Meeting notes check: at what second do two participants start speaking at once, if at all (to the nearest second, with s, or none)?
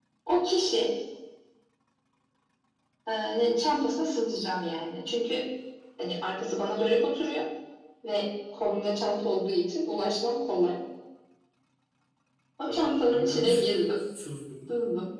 13 s